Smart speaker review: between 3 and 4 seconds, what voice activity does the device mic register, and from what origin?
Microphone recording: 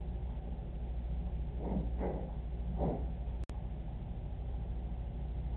neither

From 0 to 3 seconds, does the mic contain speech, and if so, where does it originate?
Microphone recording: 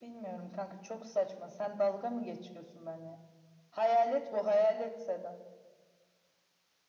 echo only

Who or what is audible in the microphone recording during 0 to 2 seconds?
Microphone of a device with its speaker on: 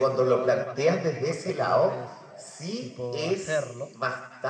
both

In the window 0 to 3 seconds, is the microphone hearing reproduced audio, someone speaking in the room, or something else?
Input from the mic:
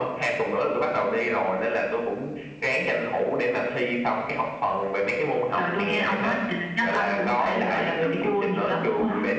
echo only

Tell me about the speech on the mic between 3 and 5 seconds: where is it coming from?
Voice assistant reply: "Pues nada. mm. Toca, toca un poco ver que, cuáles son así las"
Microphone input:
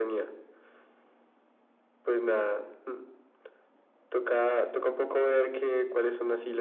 echo only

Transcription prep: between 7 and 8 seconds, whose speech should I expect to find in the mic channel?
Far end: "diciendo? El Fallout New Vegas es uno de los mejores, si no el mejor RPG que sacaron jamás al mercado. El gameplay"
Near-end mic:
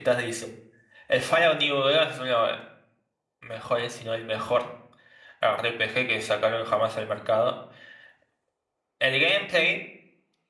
echo only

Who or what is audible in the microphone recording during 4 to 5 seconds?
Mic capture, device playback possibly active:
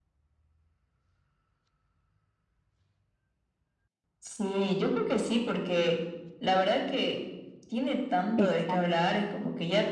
echo only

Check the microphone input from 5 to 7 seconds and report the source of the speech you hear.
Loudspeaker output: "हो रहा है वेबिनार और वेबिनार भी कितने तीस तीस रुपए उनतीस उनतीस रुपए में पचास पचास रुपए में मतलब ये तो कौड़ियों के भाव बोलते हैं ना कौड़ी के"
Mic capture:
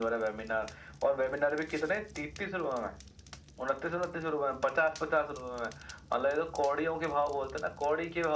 echo only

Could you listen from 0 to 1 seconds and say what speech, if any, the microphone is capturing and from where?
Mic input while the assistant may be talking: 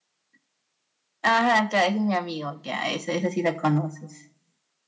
neither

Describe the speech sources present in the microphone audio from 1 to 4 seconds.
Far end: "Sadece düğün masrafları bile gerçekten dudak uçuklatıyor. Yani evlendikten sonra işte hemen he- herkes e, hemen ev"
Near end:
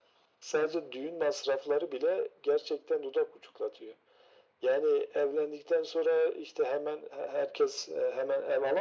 echo only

